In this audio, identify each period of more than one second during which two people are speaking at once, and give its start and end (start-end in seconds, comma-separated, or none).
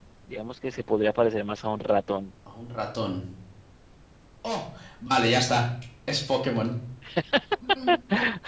none